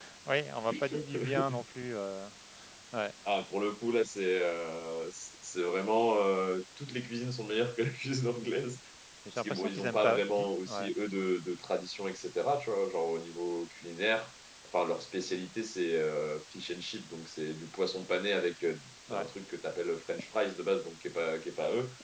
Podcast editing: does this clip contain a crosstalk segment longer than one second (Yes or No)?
Yes